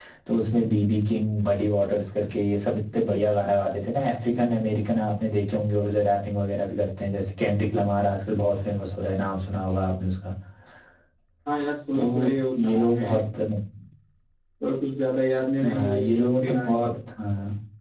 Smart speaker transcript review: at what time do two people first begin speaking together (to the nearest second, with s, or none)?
12 s